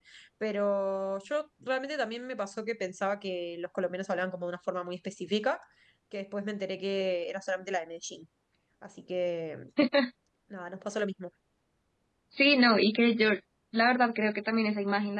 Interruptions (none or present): none